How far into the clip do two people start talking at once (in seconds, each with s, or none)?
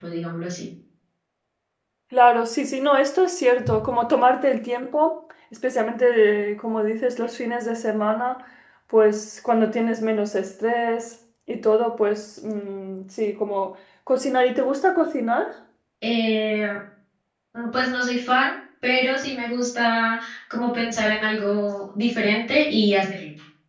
none